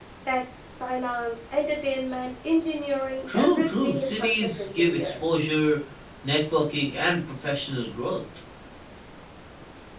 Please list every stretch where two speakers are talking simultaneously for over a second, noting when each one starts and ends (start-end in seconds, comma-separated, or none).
3.3-5.1